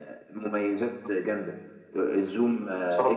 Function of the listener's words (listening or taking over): listening